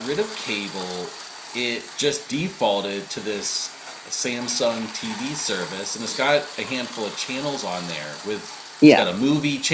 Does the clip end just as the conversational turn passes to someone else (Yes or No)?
No